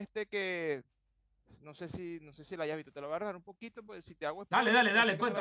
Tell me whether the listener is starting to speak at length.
Yes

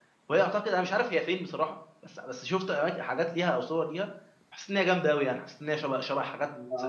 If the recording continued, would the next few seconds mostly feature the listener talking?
Yes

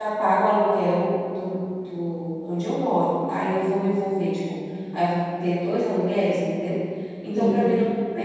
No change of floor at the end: Yes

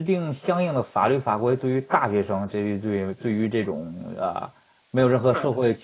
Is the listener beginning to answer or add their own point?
No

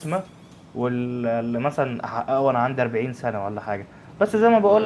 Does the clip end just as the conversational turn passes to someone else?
No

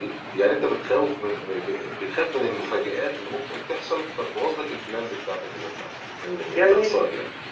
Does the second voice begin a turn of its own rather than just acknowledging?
Yes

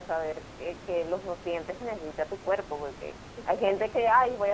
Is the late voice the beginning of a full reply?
No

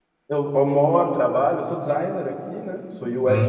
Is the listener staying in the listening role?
Yes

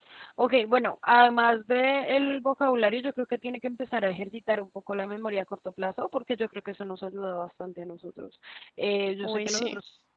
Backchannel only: Yes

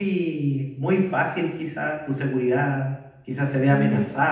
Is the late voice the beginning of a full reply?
No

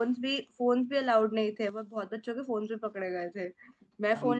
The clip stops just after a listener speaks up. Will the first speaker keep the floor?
Yes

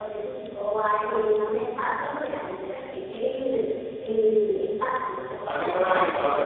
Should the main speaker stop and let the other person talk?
Yes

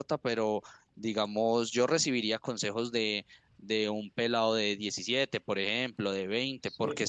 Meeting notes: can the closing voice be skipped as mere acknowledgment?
Yes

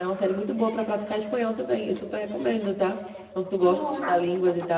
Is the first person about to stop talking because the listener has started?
No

